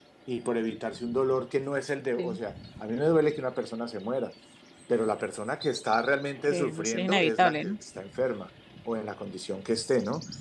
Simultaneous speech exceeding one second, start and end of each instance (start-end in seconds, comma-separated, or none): 6.5-7.7